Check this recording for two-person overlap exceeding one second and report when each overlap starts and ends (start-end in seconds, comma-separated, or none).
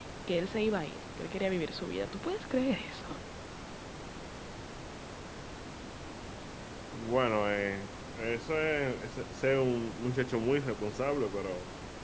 none